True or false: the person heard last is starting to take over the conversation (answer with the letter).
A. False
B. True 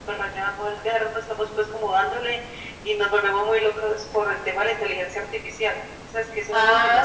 B